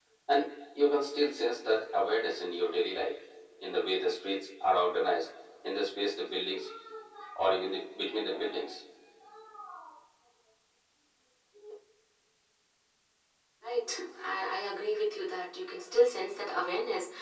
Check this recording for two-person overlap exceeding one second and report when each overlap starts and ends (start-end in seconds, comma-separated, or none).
none